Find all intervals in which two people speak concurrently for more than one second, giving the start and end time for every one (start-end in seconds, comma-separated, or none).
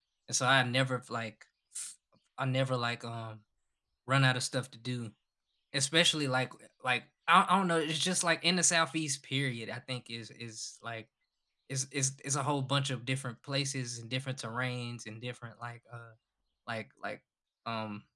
none